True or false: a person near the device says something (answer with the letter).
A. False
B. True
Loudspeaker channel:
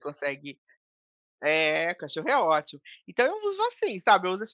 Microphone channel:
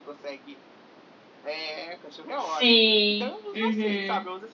B